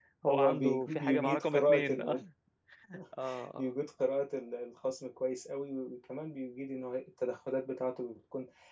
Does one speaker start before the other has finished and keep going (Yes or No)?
Yes